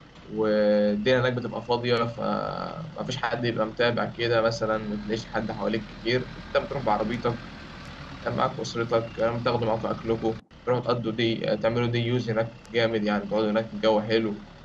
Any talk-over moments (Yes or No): No